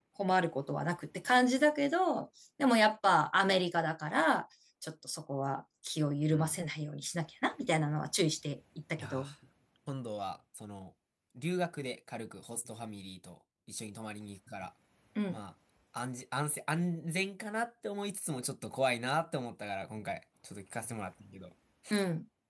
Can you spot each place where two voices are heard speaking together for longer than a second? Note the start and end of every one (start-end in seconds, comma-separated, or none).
none